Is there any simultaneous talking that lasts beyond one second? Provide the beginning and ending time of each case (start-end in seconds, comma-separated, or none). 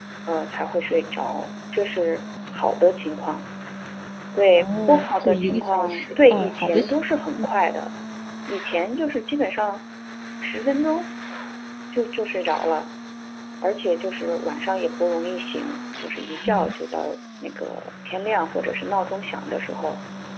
4.6-6.9